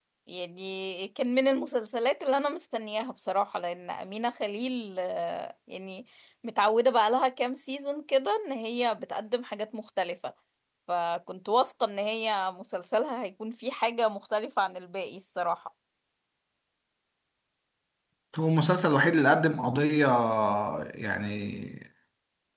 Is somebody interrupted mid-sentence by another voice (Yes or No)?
No